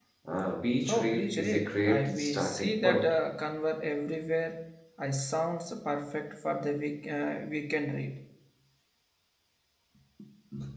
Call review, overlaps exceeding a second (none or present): present